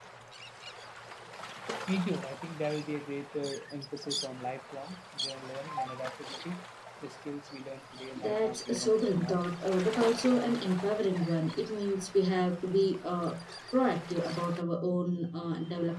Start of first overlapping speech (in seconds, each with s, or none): 8.2 s